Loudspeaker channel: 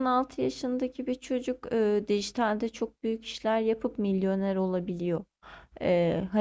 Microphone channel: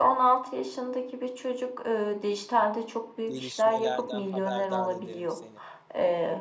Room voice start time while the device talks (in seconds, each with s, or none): 3.3 s